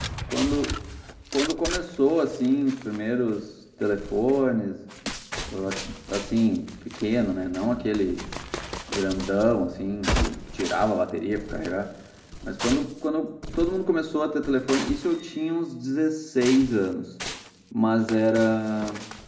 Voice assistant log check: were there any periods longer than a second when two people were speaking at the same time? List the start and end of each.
none

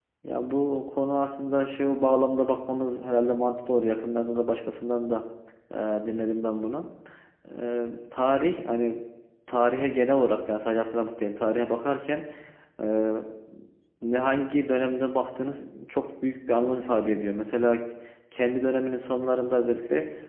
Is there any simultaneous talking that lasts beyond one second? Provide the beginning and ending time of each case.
none

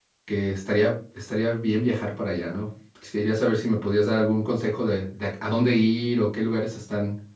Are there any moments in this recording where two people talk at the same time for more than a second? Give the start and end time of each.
none

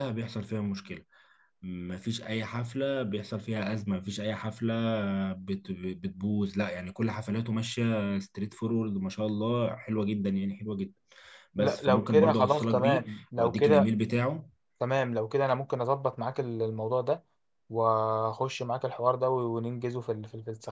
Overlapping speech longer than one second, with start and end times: 11.6-13.9

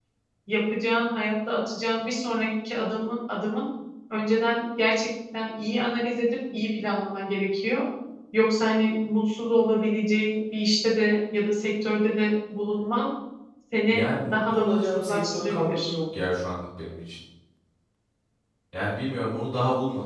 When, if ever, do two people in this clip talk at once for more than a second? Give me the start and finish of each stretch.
13.9-15.9

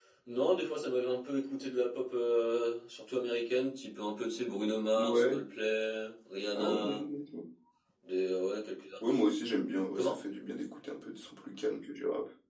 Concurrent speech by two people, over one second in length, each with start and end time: none

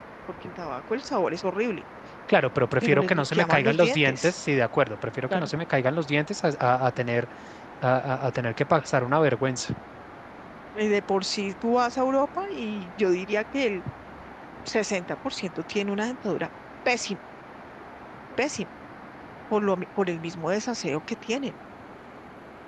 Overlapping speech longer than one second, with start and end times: 2.8-4.3

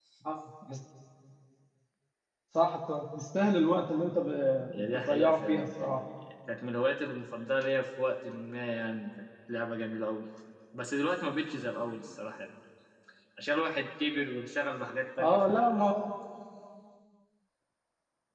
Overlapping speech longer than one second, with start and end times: 4.7-6.0

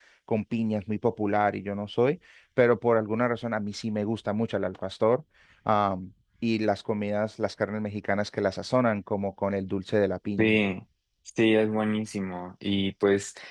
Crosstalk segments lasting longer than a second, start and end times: none

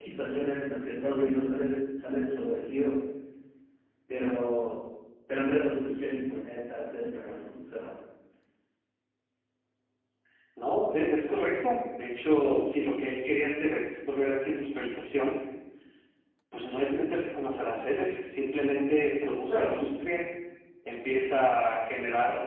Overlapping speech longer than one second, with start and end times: none

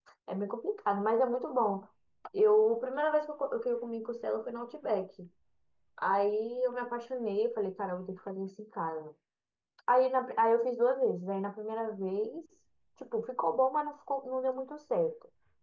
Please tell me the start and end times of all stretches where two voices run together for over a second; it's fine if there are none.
none

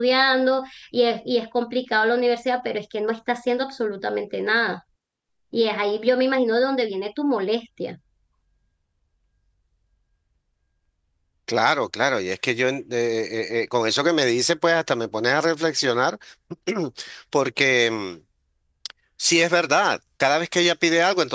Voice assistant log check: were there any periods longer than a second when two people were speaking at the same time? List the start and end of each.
none

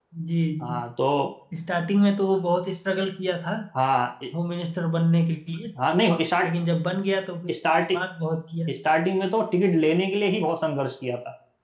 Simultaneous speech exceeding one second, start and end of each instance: none

